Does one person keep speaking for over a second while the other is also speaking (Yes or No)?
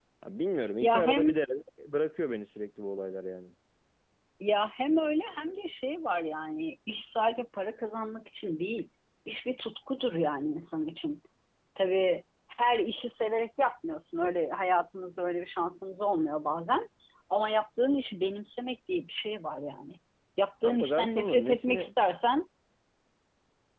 Yes